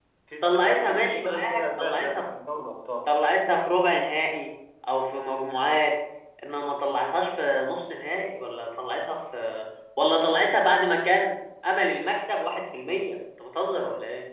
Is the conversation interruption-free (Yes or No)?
No